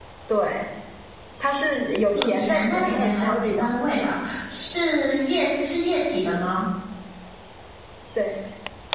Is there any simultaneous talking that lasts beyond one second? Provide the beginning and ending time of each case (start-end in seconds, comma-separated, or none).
2.1-3.7